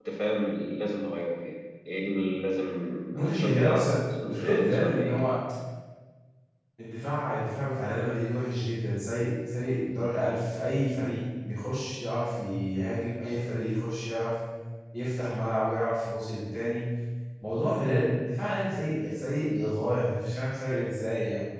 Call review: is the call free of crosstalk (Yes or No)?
No